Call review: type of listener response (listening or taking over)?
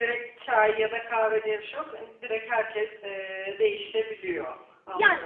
taking over